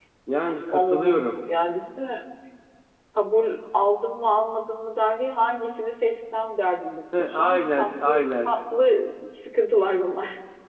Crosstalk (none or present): present